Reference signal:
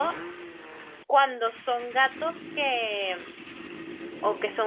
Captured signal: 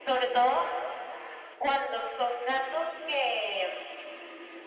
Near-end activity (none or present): none